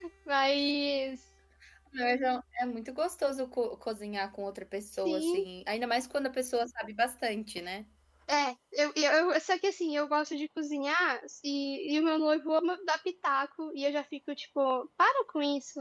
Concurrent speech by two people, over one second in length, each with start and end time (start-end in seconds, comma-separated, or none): none